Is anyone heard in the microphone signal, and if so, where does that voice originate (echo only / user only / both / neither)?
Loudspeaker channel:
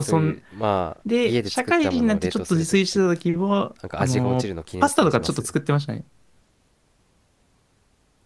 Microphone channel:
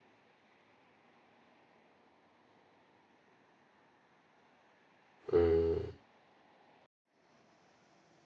user only